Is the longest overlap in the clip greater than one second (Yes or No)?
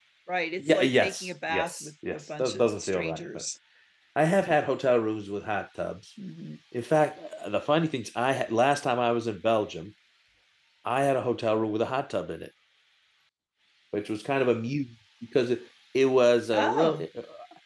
Yes